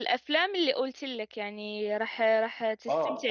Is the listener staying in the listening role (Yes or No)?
No